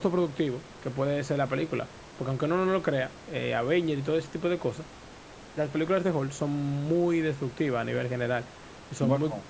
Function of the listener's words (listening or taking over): listening